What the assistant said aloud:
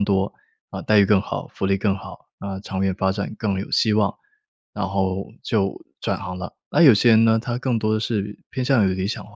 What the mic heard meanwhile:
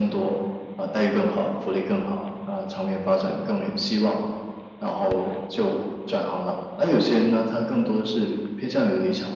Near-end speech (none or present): none